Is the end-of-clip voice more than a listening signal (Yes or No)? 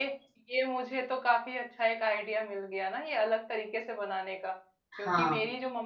No